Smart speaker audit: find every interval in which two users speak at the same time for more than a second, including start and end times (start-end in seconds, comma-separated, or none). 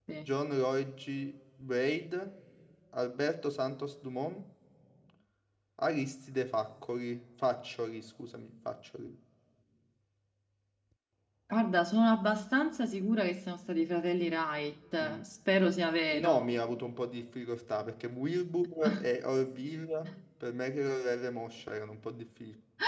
none